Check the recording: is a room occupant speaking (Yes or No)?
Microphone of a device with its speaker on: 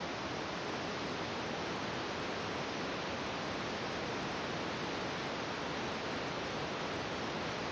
No